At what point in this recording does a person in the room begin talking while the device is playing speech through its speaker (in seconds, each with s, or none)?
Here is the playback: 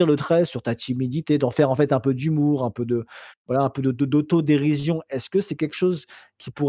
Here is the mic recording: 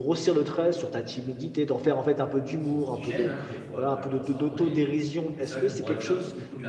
2.6 s